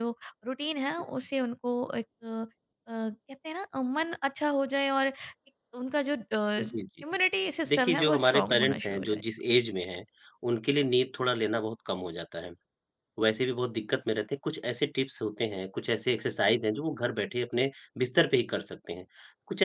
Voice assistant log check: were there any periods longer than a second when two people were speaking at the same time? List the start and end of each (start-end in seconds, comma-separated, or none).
7.7-9.2